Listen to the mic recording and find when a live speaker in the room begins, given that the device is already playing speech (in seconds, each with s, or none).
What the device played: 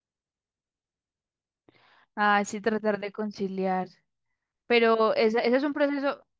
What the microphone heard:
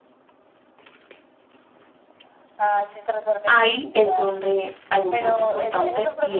3.5 s